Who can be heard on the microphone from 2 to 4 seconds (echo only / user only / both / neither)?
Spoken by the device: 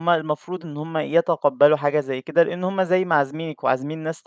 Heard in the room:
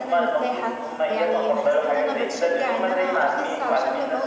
both